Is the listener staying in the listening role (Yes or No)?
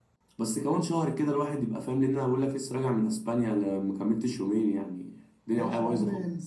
No